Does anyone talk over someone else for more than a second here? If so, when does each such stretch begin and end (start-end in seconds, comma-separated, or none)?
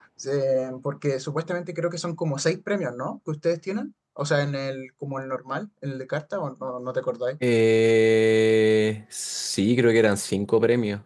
none